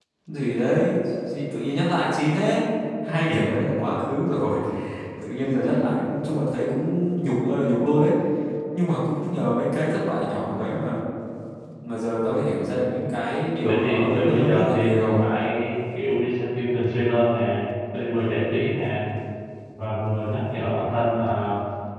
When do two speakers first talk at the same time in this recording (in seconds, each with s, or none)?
13.6 s